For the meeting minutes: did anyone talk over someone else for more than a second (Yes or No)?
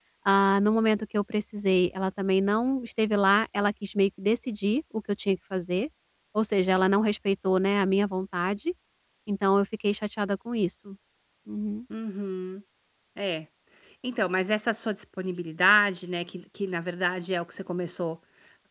No